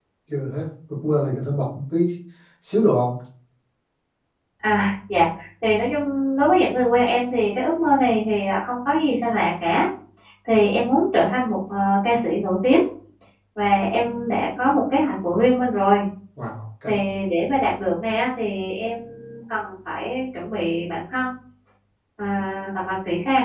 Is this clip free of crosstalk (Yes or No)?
Yes